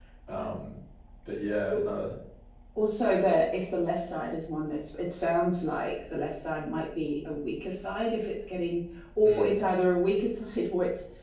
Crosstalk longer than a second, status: none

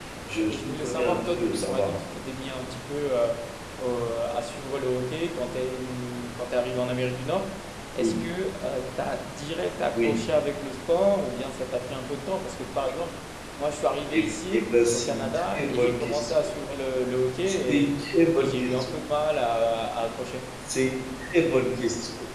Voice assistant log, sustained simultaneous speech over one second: present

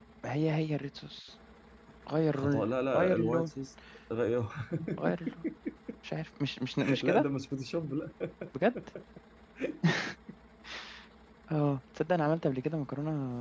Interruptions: present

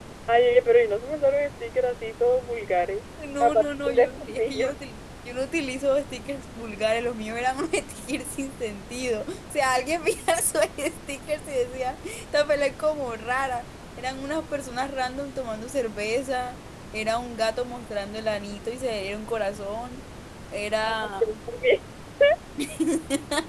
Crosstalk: present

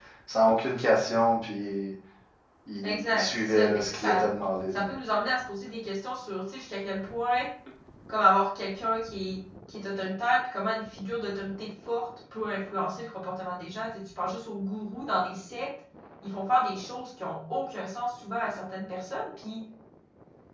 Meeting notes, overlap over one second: present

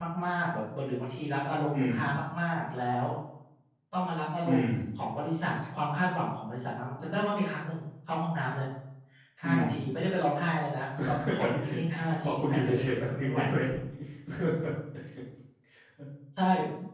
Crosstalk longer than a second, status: present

